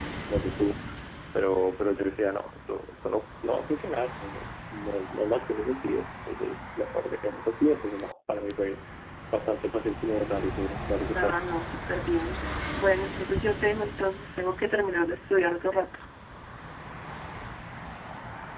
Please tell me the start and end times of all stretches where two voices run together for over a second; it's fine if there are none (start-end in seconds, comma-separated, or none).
none